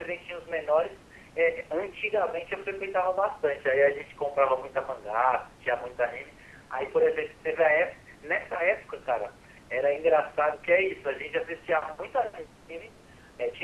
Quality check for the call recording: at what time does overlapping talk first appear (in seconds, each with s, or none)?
none